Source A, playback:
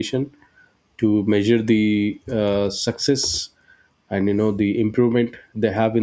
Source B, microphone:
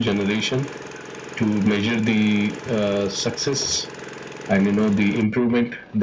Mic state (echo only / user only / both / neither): echo only